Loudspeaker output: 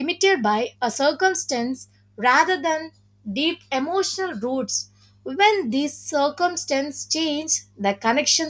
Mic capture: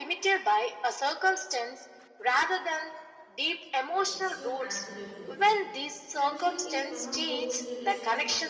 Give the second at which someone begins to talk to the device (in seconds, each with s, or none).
3.9 s